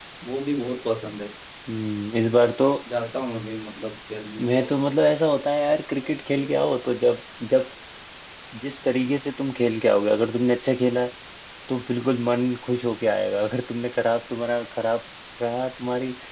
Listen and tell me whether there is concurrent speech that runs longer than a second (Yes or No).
No